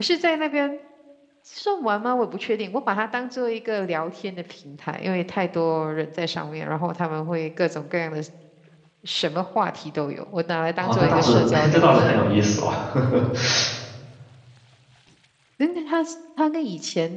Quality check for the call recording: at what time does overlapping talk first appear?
11 s

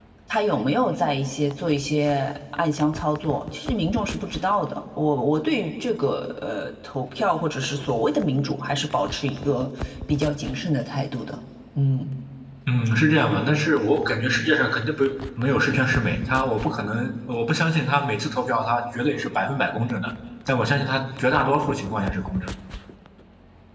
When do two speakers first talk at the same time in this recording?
none

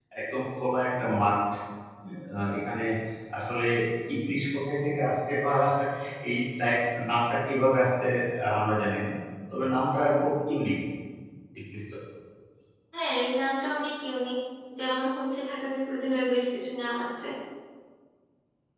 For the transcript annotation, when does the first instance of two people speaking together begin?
none

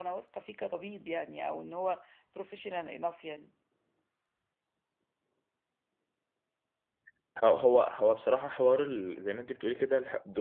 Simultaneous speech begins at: none

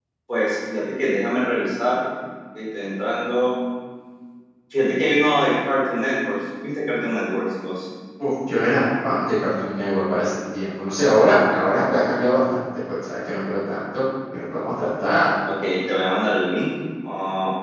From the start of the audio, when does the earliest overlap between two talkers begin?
none

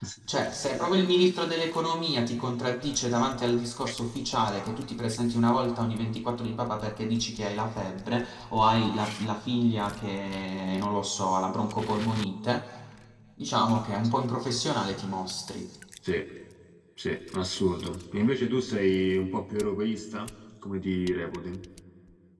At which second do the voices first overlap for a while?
none

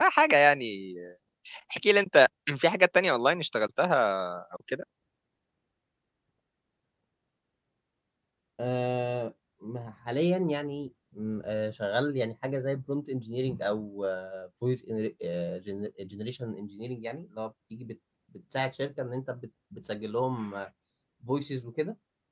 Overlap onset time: none

